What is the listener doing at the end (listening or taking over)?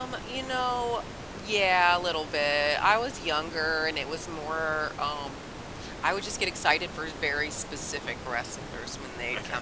listening